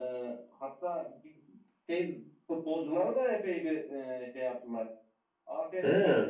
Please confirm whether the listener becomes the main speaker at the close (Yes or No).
No